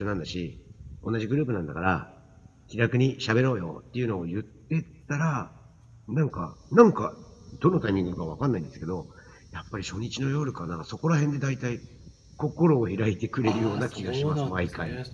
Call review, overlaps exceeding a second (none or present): present